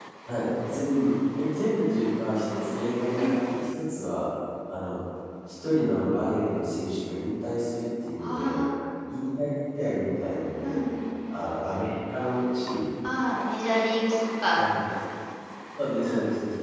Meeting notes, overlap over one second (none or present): none